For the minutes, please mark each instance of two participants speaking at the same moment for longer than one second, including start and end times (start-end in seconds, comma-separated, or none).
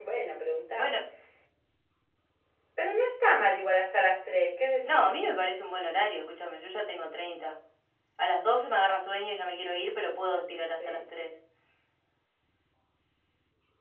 none